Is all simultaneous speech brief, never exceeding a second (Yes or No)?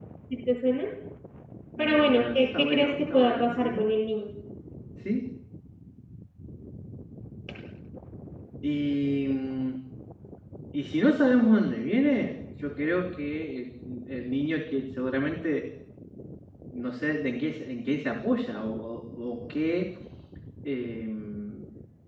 No